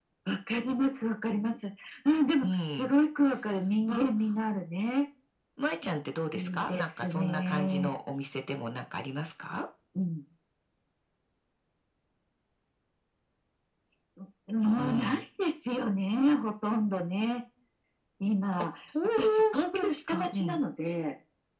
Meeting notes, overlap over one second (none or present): present